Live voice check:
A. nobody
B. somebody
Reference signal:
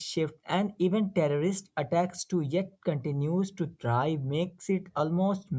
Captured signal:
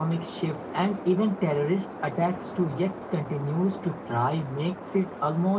A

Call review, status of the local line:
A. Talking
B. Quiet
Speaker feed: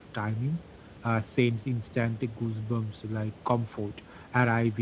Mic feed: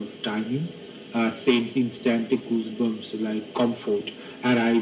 B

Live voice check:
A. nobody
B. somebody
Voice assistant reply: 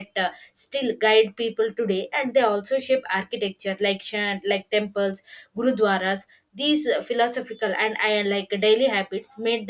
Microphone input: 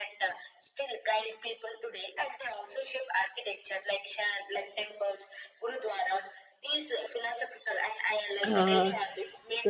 B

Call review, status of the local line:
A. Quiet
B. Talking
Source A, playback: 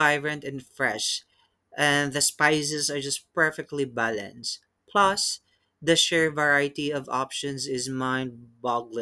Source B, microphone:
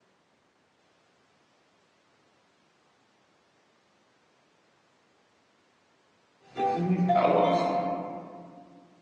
B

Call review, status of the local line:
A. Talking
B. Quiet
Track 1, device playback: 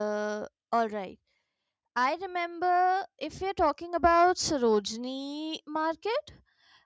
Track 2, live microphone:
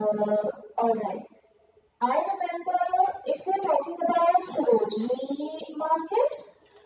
B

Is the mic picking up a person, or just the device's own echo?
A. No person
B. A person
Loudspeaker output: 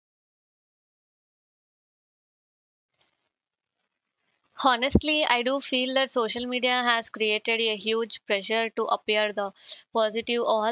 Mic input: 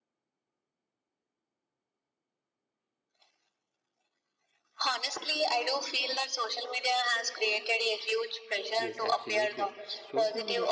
B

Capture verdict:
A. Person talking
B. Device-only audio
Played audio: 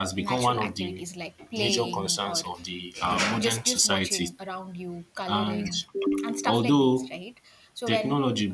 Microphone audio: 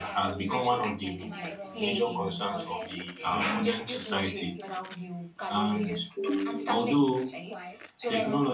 A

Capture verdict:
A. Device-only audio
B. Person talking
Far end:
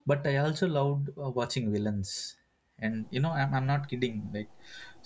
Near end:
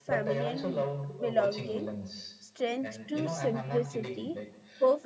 B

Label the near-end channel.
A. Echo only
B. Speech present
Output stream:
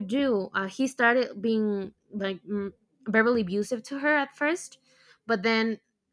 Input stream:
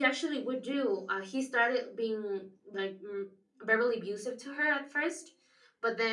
A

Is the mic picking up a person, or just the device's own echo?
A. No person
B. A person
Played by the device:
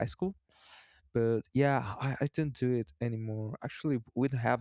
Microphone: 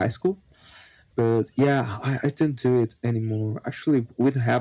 A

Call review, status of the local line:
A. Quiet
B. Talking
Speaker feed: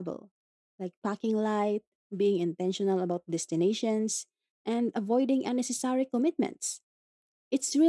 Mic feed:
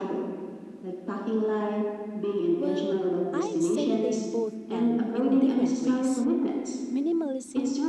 B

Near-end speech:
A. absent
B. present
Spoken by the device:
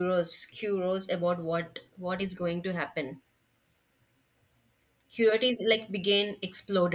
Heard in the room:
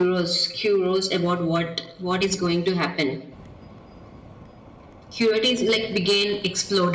A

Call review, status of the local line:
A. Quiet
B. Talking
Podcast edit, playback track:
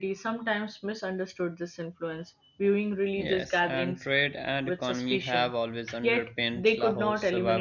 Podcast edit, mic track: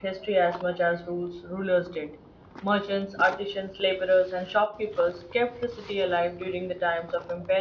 B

